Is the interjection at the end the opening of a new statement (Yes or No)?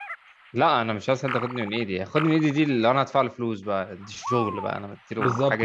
Yes